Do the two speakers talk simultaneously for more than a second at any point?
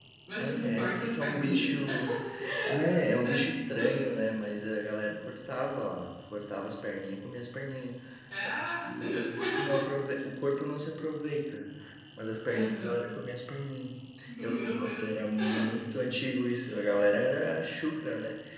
Yes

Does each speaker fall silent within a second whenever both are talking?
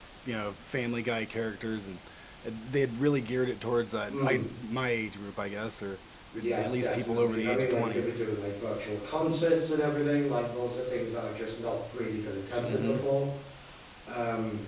No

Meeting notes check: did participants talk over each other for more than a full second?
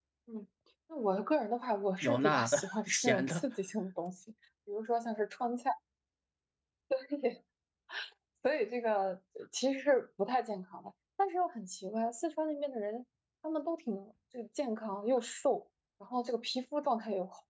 Yes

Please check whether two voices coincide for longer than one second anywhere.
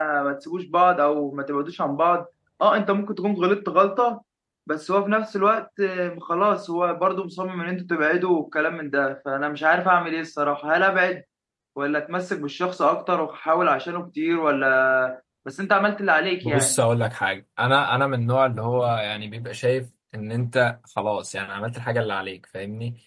No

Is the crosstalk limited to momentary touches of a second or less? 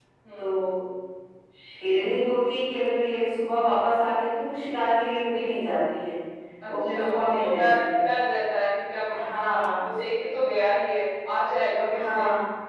No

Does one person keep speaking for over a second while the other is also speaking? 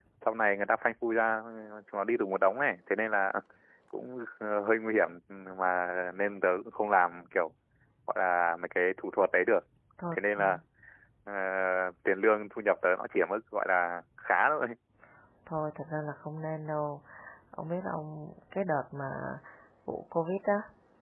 No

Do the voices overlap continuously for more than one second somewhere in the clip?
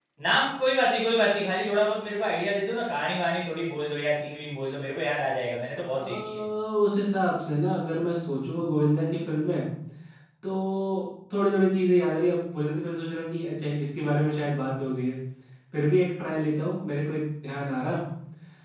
No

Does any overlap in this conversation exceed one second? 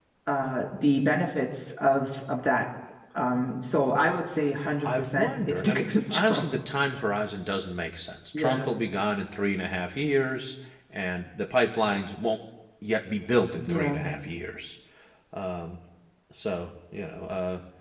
Yes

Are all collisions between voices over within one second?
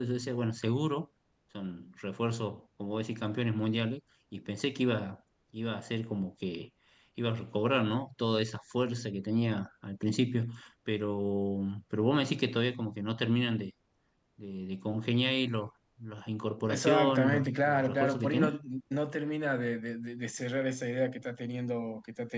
No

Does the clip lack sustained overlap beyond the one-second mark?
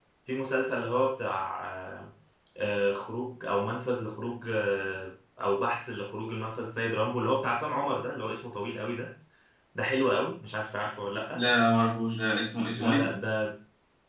Yes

